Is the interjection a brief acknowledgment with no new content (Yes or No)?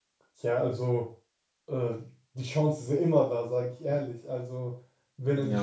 No